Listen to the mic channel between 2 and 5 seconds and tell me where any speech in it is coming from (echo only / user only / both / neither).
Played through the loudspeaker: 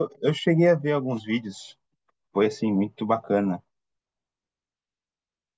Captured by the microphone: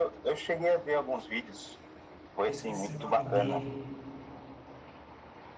both